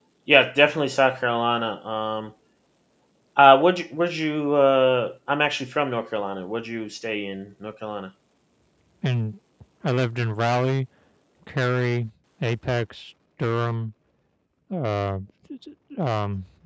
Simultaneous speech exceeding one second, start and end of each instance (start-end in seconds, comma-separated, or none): none